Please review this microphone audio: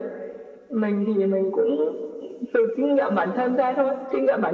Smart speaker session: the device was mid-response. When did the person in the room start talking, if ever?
none

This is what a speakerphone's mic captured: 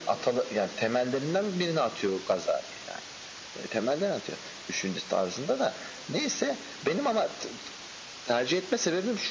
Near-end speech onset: none

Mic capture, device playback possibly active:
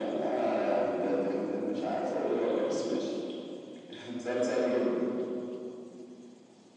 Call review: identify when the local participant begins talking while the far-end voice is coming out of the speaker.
none

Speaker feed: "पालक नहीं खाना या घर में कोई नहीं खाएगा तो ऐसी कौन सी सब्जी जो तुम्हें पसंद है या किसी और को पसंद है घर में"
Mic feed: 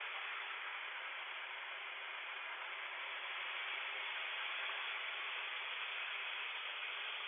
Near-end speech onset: none

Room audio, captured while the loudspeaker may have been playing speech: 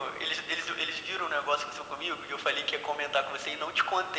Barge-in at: none

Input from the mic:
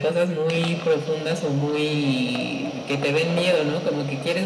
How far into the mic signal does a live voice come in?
none

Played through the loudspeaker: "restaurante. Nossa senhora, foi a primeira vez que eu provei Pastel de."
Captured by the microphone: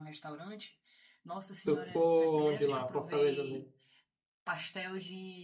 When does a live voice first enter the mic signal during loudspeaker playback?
1.6 s

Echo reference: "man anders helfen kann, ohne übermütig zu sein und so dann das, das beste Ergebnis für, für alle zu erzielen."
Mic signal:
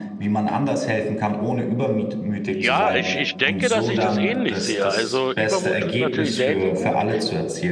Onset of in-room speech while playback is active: 2.5 s

